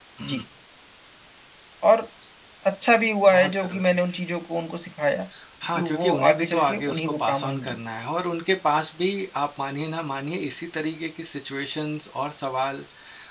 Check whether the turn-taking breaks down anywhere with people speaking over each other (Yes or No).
Yes